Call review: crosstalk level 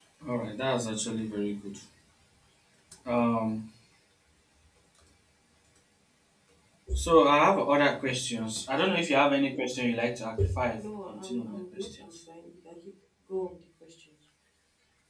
present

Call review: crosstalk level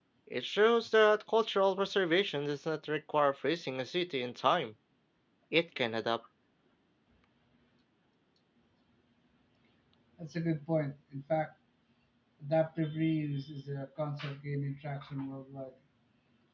none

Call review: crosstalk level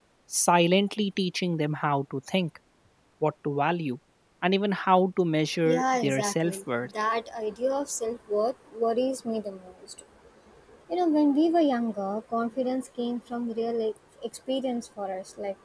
present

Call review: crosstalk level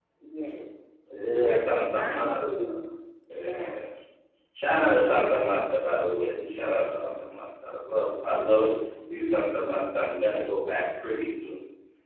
present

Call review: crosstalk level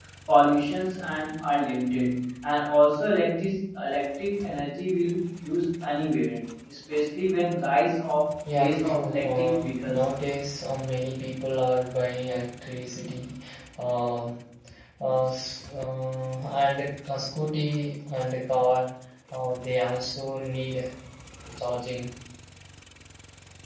present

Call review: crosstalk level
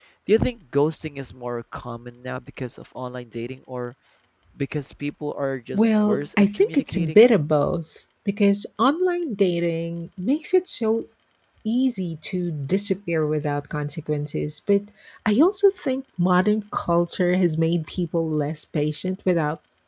present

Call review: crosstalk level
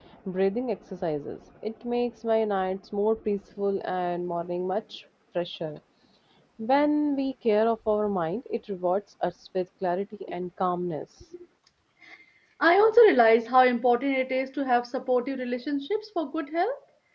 none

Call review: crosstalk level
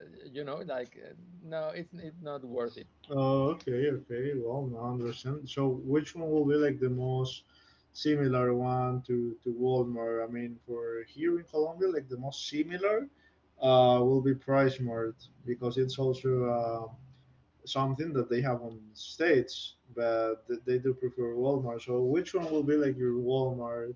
none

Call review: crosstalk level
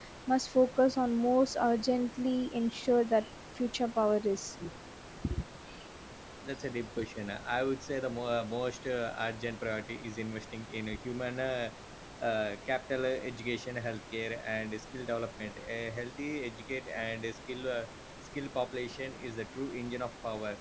none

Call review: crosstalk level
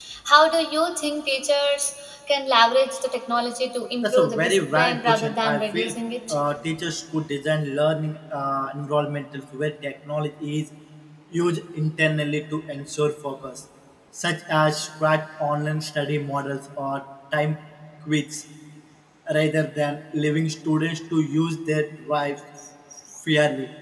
present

